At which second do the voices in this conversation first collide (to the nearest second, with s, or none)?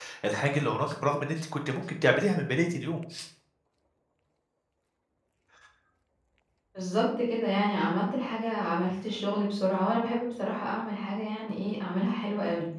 none